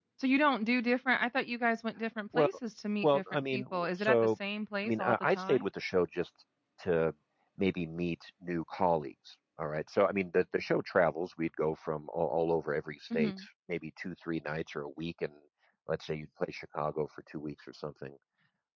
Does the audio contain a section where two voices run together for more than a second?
Yes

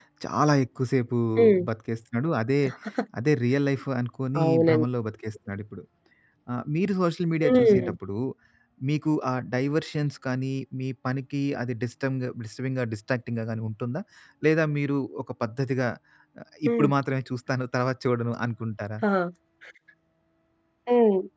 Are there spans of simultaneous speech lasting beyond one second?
No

